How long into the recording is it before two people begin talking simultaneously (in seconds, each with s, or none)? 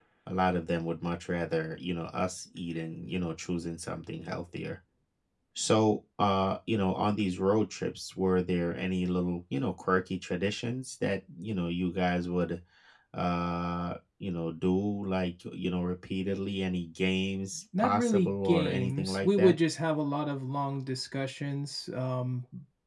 17.7 s